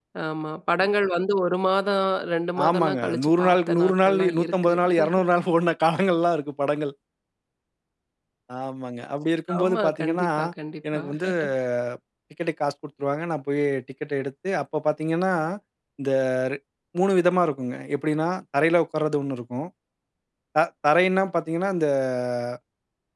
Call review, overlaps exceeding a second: present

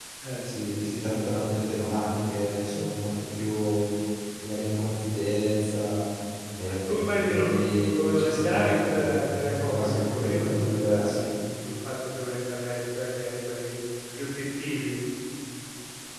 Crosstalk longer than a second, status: present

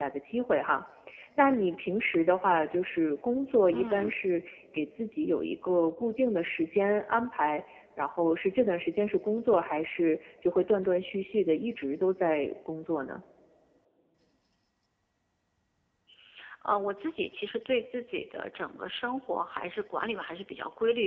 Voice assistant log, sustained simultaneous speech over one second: none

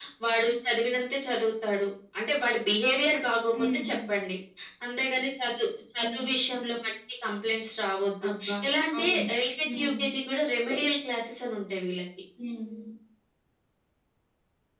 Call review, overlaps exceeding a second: none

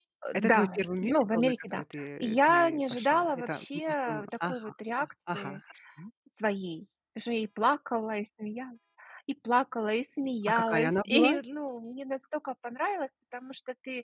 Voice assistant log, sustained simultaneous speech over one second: present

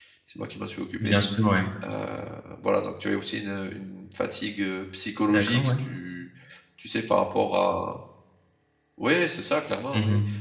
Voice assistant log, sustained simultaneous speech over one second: none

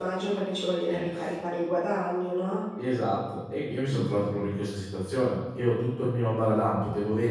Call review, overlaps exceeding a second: none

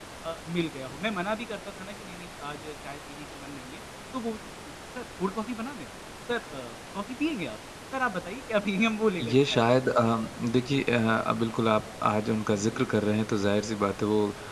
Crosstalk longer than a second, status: none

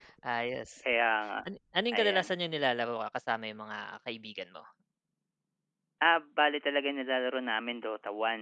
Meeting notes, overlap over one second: none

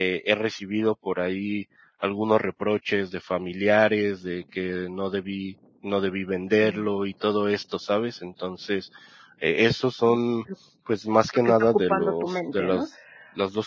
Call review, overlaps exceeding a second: present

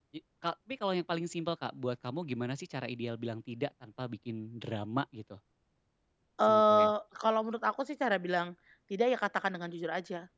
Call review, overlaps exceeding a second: none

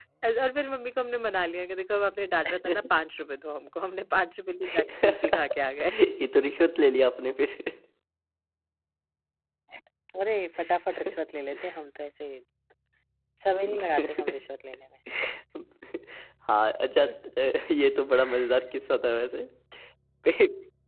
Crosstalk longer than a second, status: present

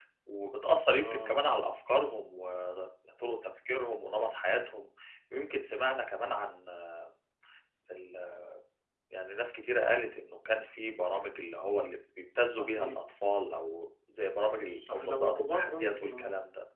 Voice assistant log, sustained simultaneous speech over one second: present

